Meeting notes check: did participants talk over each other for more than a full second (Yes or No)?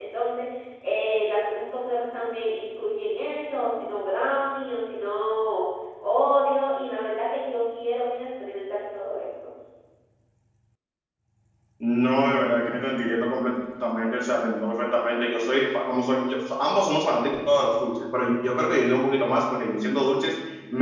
No